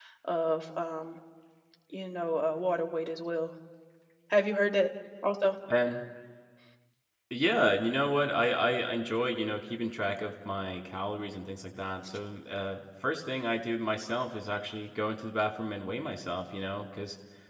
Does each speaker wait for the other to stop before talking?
Yes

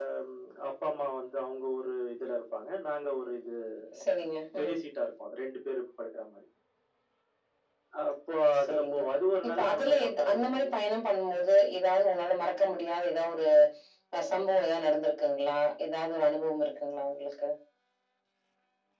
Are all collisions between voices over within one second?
No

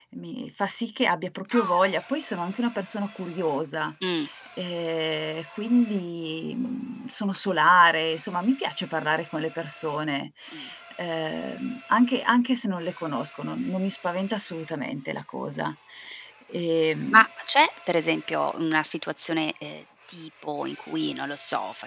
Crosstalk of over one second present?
No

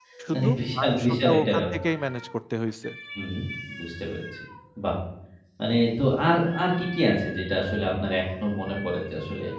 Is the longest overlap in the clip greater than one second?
Yes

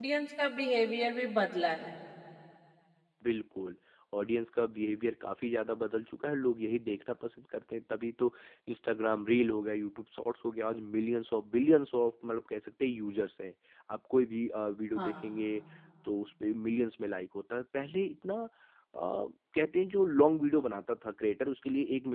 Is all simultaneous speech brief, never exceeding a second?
Yes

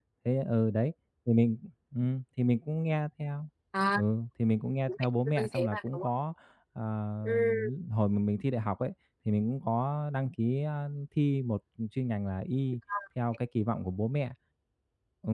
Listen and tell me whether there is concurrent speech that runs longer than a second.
Yes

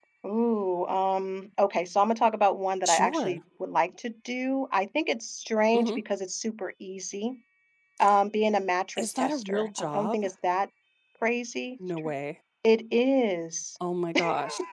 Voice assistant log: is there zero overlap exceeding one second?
No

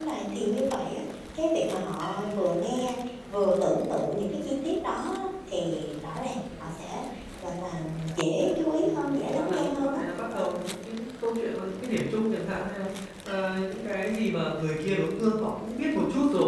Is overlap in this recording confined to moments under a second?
No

